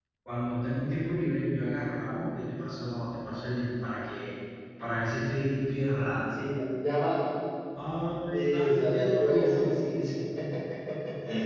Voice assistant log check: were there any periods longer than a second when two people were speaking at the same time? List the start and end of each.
8.3-9.7

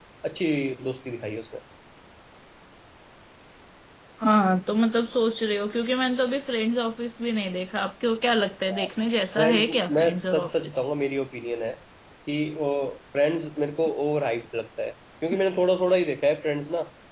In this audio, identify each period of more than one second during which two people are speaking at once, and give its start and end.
9.4-10.7

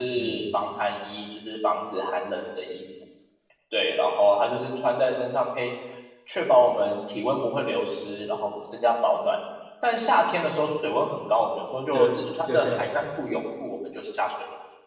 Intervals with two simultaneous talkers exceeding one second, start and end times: 11.9-13.3

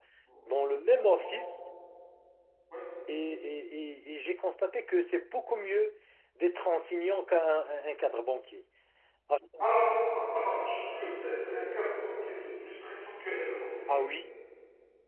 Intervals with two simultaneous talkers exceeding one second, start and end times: none

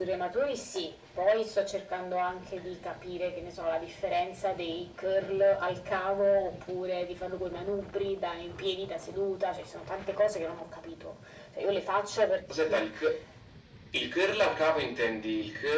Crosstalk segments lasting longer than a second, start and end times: none

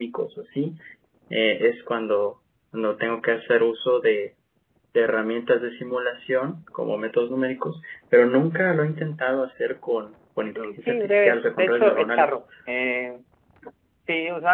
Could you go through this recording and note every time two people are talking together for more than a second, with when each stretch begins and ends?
10.6-12.4

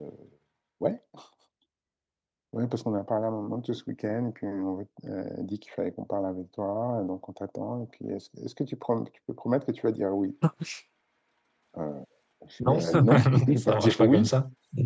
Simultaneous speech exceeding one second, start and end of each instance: 12.6-14.2

